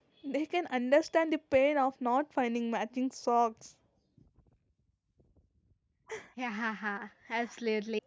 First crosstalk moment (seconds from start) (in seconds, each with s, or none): none